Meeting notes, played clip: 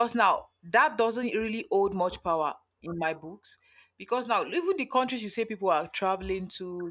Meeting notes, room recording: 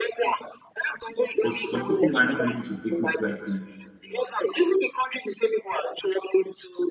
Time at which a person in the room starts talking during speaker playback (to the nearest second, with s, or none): 1 s